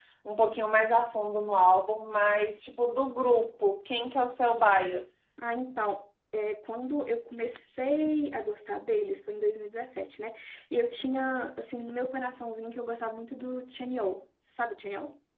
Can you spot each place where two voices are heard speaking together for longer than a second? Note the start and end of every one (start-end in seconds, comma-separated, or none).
none